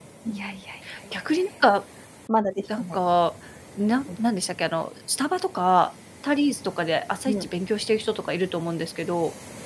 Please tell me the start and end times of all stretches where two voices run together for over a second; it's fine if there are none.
none

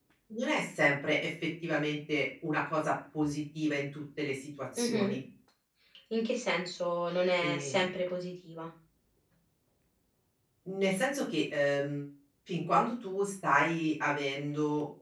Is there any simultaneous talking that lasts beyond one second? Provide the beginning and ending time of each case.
none

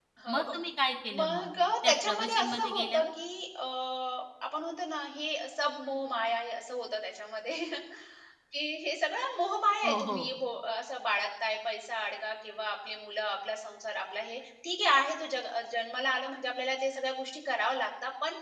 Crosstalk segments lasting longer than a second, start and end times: 1.9-3.1

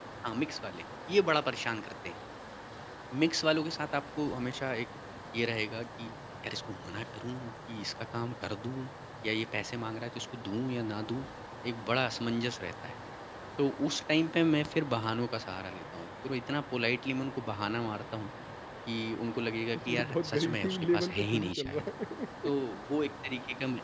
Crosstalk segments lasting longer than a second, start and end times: 19.8-21.9

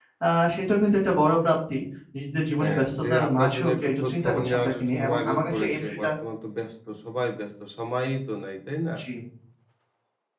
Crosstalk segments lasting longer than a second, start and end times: 2.6-6.1

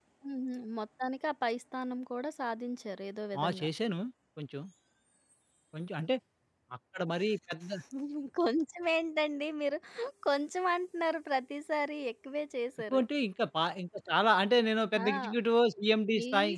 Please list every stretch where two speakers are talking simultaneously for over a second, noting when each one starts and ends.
none

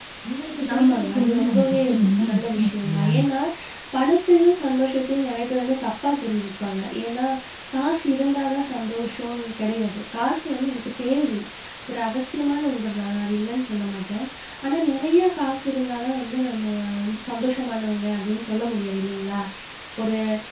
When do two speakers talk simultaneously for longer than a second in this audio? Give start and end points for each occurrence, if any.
0.7-3.1

